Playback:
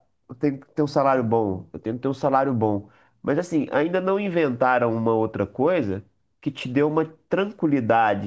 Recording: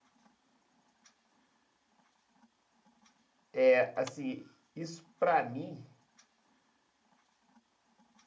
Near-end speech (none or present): present